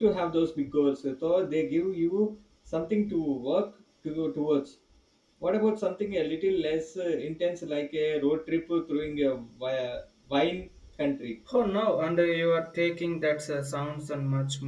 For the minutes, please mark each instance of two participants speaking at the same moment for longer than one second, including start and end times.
none

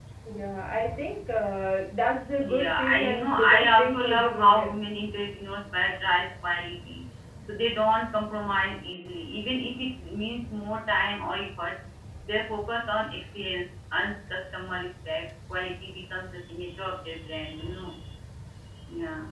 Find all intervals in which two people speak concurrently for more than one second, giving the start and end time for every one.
2.4-4.8

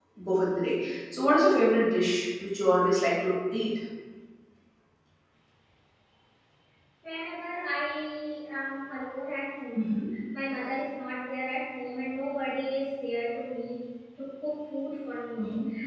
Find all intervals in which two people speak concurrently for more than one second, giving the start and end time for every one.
none

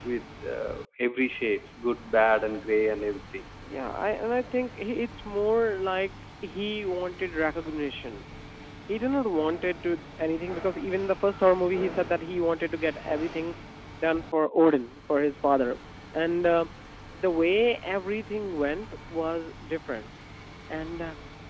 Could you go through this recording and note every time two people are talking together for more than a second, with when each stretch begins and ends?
none

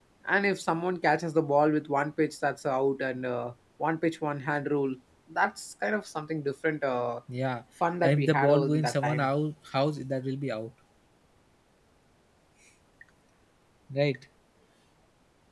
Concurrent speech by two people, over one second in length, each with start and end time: 8.0-9.3

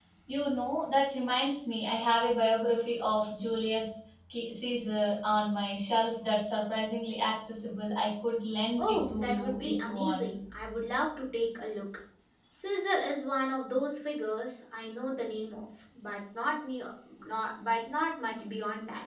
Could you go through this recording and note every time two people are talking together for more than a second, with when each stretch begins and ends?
8.8-10.3

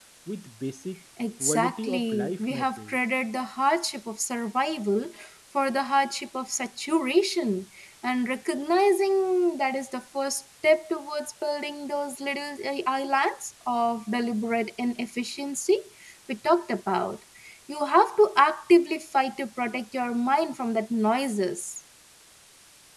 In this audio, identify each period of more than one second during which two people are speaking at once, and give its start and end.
1.4-2.9

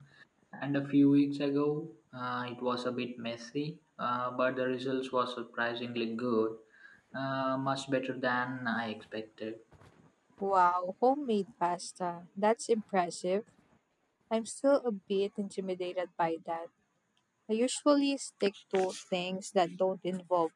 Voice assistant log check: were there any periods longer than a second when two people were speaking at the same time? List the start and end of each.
none

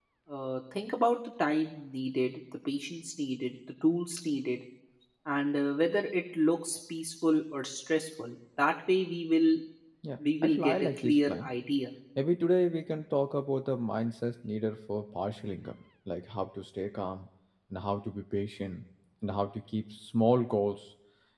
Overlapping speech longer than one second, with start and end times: 10.2-11.5

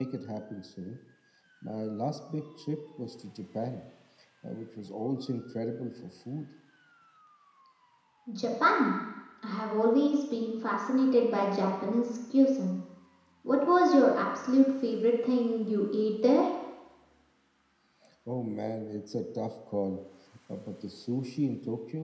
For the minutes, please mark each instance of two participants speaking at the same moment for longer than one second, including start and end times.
none

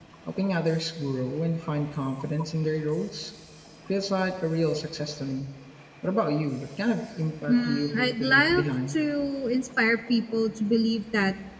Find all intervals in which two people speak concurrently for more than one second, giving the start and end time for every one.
7.5-9.0

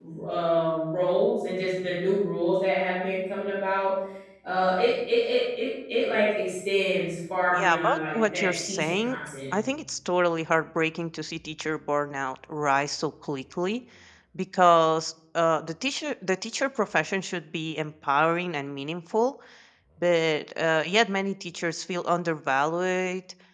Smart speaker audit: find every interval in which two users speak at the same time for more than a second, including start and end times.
7.6-9.2

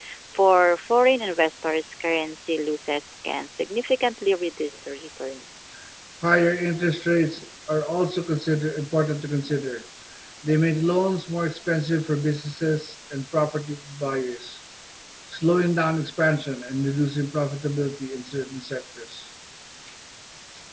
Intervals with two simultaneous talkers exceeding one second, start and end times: none

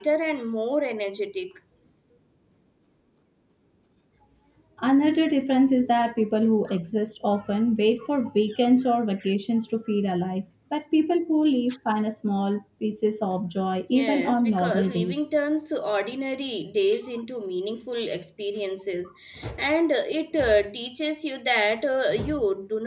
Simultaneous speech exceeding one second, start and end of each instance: 13.9-15.2

